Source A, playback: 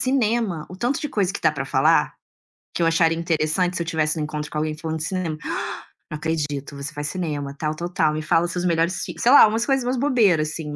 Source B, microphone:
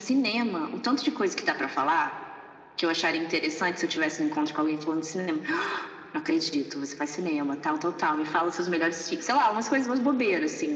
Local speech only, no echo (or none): none